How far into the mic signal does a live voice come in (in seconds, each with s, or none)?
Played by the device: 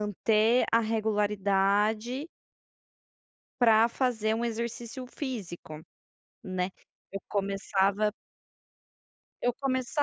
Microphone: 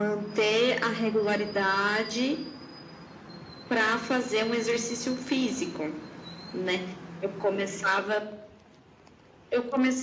none